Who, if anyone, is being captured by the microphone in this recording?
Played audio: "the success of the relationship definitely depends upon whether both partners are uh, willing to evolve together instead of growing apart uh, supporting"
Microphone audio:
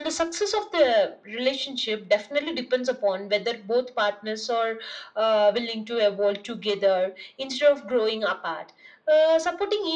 echo only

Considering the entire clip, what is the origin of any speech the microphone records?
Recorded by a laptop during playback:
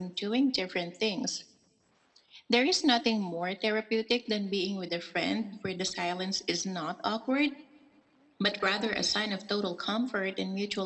echo only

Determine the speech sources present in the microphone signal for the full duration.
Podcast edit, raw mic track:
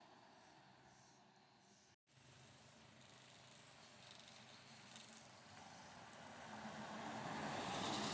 neither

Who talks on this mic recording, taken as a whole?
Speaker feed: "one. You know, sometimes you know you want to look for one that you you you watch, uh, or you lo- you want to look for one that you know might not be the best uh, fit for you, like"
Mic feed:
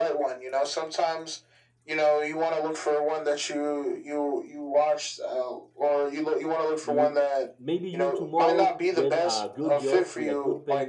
both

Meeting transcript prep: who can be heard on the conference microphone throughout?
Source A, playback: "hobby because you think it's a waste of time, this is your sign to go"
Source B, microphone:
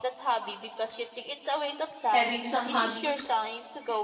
both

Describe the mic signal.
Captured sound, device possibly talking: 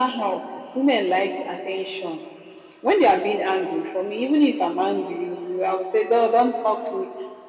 echo only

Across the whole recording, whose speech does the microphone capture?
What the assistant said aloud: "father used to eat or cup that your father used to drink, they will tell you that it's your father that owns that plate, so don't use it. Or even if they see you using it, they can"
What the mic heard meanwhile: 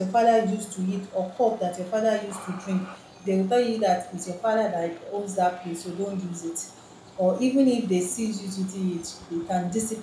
echo only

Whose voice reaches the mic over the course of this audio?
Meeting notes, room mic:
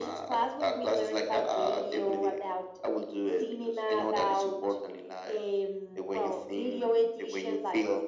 echo only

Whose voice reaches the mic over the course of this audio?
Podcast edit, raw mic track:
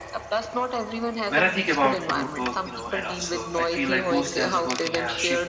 both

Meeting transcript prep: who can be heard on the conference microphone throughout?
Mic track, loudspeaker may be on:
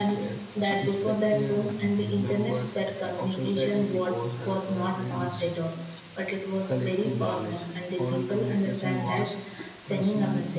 echo only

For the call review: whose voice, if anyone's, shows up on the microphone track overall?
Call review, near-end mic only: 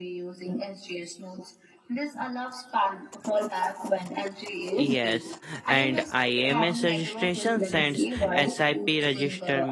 both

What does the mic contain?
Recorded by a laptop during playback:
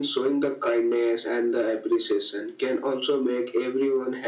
echo only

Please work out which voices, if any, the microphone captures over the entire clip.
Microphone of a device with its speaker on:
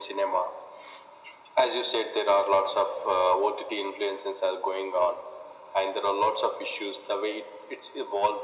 echo only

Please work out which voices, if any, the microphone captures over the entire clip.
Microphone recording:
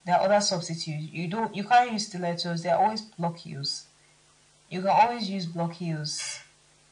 echo only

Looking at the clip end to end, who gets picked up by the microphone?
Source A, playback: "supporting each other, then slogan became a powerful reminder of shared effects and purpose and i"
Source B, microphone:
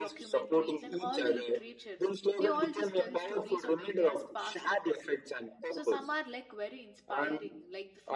both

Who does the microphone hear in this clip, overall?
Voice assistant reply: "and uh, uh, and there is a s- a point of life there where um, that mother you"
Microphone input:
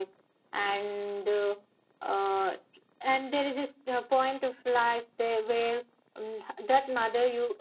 echo only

